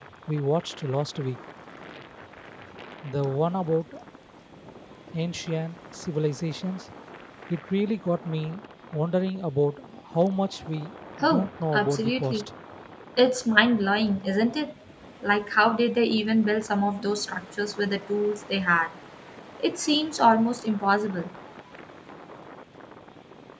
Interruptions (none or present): present